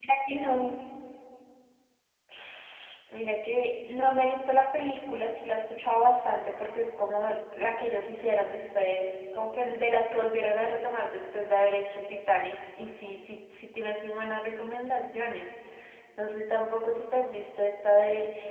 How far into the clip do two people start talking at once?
none

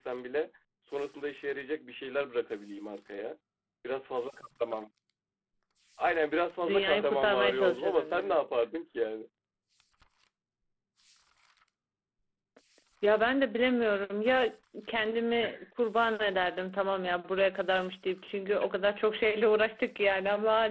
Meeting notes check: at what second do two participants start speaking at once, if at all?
6.7 s

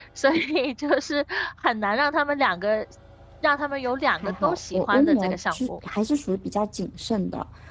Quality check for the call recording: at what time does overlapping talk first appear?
4.2 s

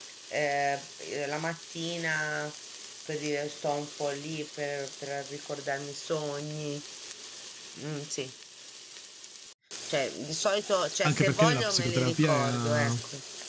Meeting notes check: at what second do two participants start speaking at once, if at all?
11.0 s

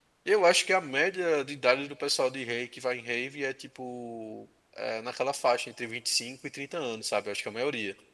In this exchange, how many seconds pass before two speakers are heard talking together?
none

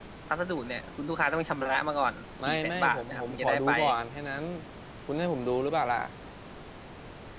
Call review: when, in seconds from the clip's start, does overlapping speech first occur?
2.4 s

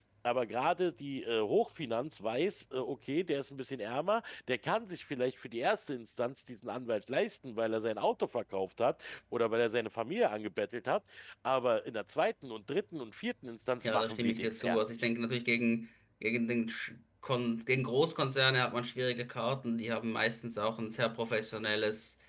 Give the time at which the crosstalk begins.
13.8 s

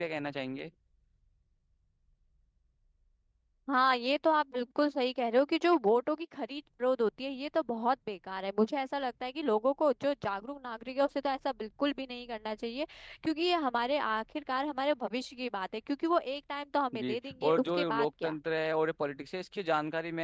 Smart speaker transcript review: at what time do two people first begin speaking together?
16.9 s

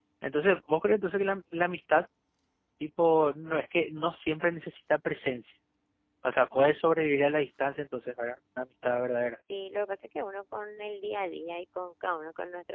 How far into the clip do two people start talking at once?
none

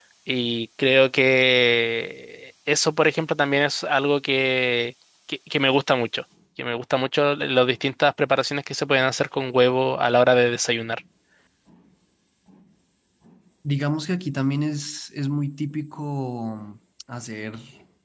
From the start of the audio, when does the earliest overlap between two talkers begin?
none

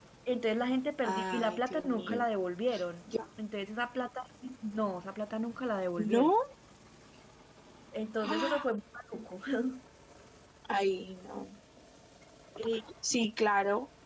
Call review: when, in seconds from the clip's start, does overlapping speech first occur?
1.0 s

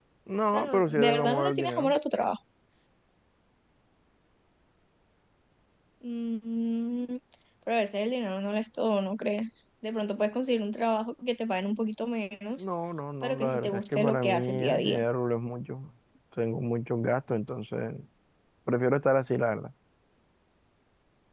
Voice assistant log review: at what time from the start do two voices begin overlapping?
0.5 s

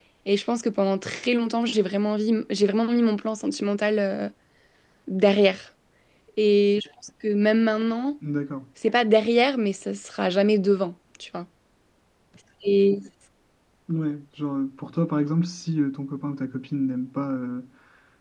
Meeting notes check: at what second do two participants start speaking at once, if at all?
none

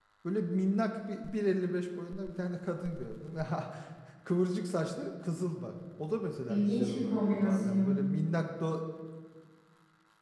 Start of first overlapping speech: 6.5 s

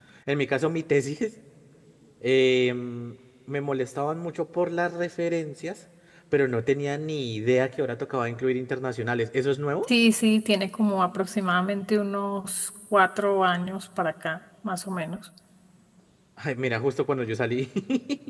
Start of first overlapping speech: none

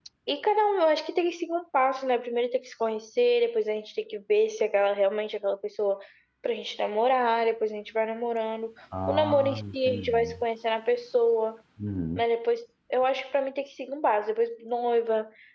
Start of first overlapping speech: 8.9 s

